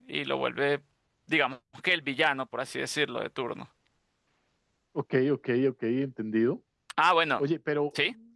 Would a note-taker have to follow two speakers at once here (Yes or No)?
No